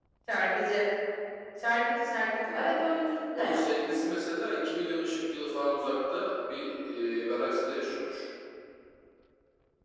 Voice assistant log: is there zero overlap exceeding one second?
Yes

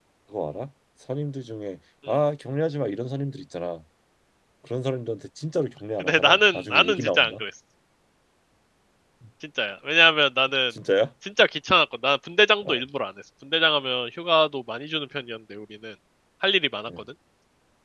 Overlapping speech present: Yes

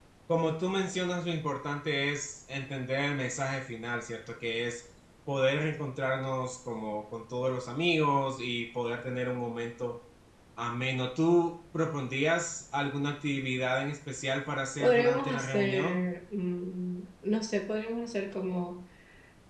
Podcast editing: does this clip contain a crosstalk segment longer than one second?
Yes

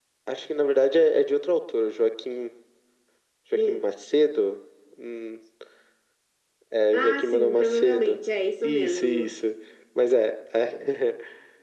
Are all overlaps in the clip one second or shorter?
No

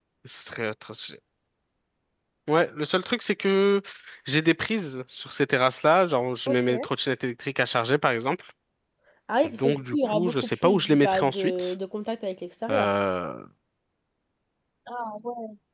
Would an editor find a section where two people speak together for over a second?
Yes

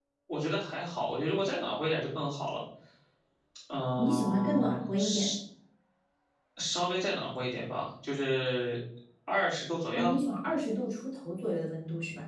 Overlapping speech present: Yes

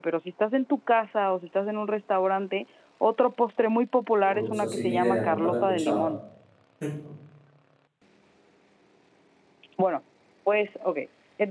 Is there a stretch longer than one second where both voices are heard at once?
Yes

